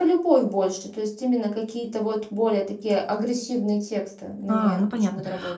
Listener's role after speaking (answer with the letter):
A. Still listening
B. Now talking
B